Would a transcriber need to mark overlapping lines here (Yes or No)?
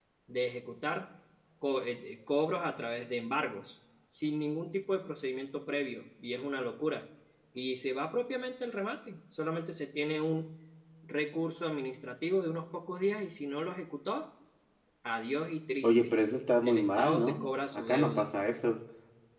Yes